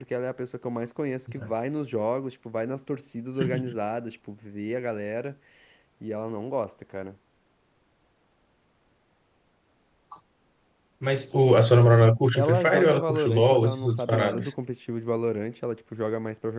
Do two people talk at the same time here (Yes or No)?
Yes